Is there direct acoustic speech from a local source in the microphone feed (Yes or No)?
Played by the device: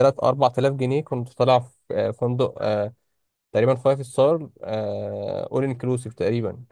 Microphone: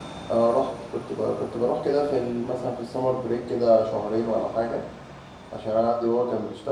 Yes